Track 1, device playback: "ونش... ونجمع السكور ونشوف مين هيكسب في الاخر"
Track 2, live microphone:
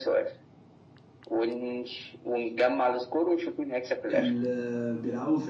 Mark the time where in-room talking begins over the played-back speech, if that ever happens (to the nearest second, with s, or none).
4 s